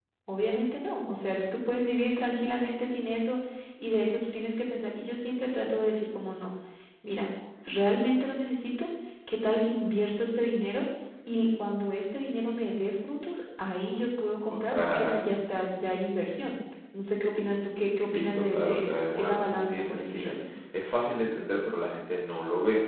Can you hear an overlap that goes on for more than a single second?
Yes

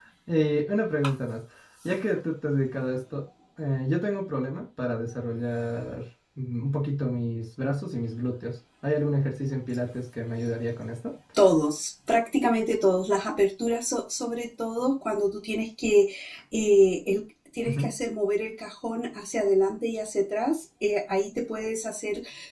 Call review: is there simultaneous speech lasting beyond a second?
No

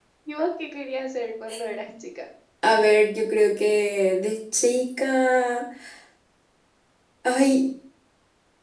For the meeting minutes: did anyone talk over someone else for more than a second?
No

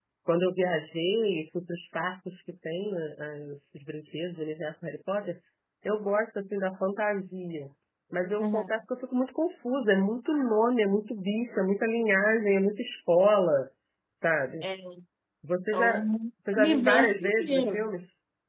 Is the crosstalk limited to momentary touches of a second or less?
No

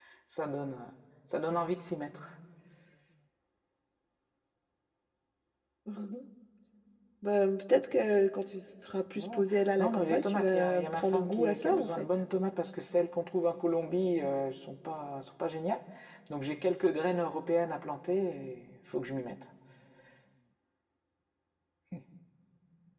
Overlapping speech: Yes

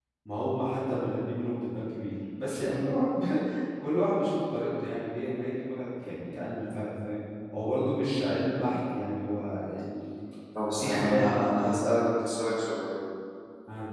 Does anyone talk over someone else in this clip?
Yes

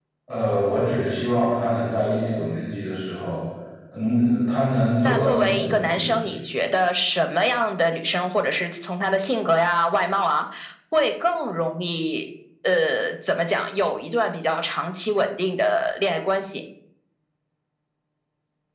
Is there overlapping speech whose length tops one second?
Yes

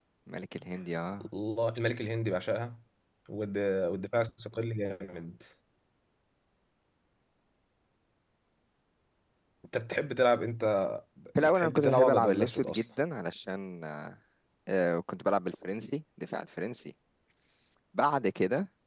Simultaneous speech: Yes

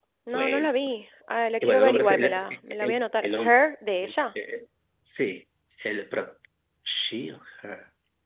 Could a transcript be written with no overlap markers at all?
No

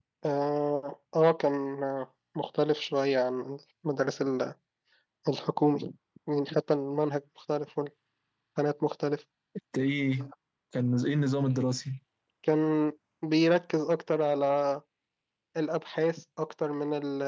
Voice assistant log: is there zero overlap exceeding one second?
Yes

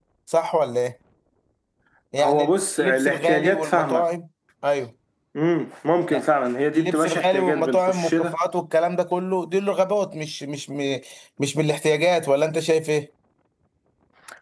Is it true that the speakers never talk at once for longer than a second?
No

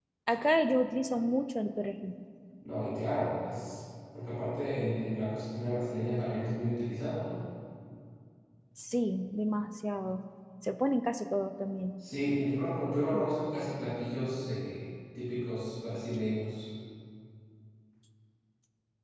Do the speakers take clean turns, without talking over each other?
Yes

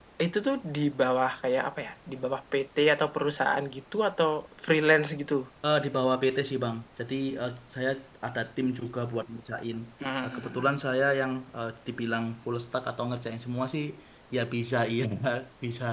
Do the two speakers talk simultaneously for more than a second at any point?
No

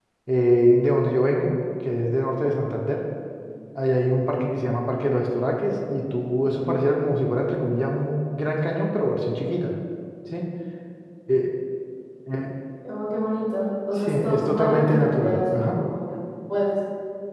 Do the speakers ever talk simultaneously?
Yes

